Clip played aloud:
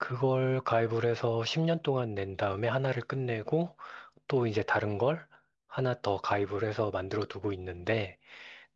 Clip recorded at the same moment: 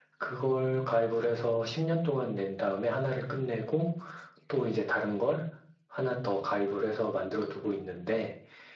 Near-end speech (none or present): none